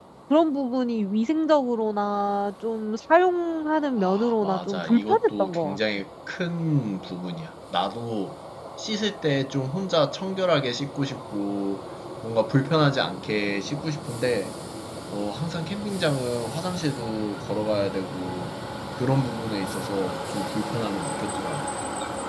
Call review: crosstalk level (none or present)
present